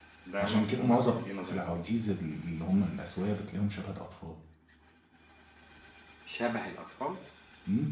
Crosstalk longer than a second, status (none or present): present